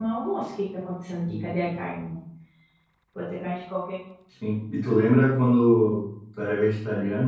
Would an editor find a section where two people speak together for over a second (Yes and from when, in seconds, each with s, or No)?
No